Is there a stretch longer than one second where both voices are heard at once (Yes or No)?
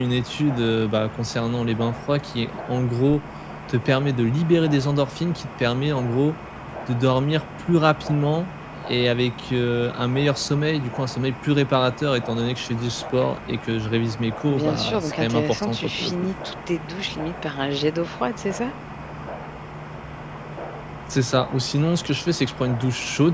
Yes